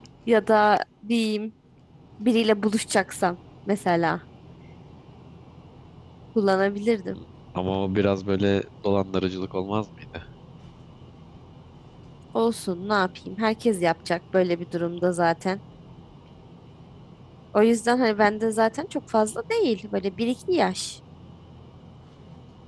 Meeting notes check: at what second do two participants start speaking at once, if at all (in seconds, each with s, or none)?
none